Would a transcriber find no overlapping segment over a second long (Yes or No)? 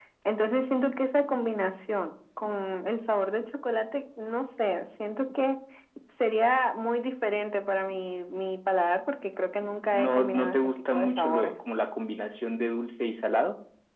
No